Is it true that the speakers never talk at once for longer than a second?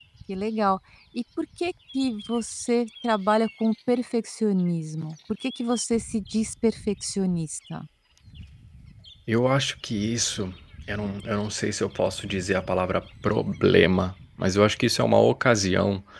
Yes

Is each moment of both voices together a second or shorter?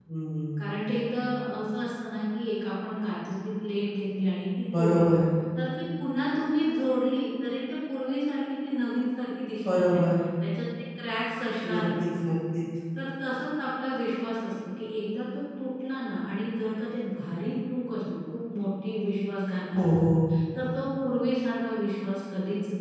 Yes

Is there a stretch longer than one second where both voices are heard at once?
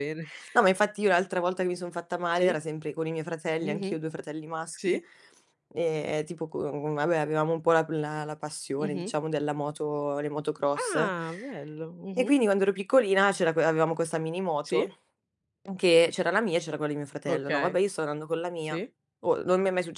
No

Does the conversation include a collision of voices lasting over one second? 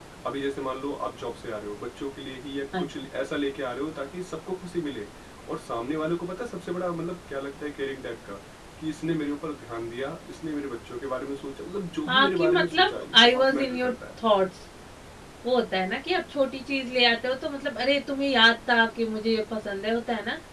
Yes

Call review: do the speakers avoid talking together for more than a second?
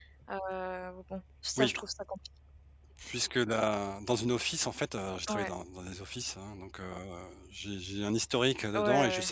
Yes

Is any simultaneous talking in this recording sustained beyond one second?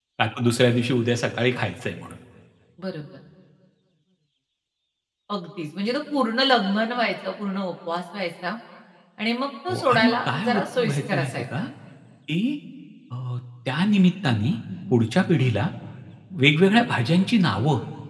Yes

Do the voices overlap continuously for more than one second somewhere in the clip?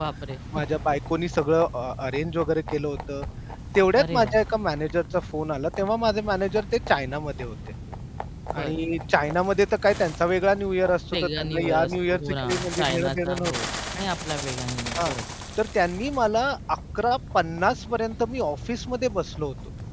Yes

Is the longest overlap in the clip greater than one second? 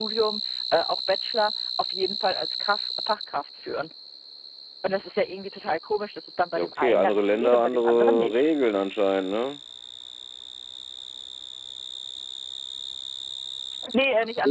Yes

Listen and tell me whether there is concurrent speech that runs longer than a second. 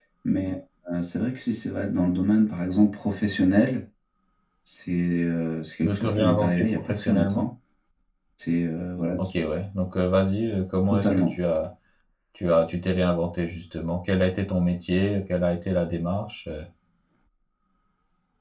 Yes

